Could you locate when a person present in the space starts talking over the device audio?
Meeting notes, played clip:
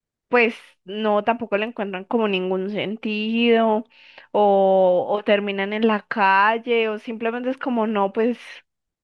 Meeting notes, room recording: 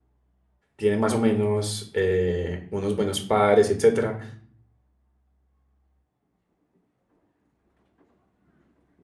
0.8 s

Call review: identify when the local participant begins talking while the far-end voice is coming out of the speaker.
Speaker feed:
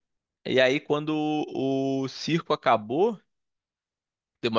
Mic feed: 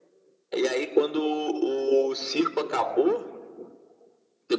none

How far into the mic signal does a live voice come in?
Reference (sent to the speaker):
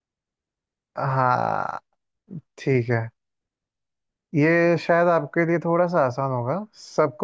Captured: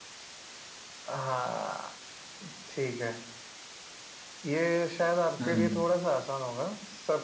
5.4 s

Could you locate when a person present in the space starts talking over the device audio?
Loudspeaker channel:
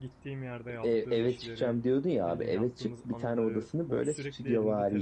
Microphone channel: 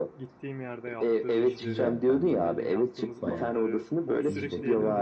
1.4 s

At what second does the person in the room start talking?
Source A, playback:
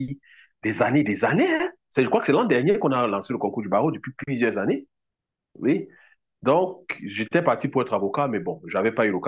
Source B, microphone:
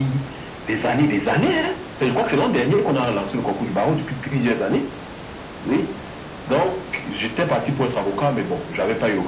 none

